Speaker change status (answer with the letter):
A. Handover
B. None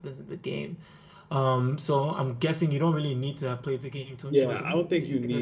A